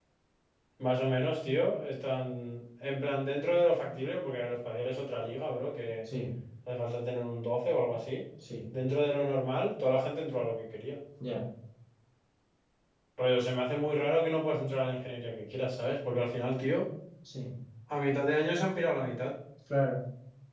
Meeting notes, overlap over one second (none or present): none